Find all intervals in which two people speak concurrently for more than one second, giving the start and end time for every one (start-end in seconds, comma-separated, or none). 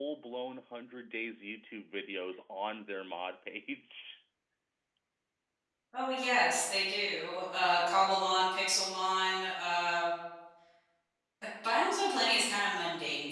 none